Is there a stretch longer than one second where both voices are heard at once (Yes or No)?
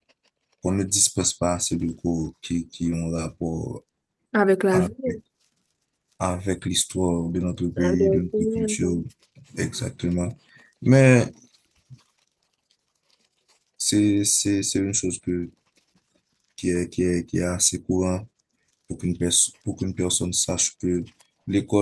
Yes